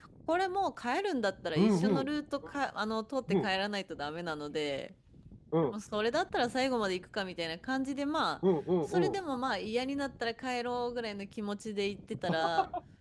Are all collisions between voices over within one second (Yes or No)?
Yes